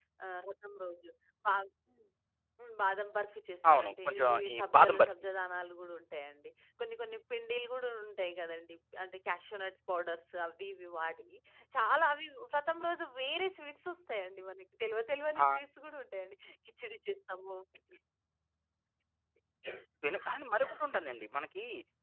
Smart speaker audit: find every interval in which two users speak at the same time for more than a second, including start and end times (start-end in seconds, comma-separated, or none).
3.7-5.2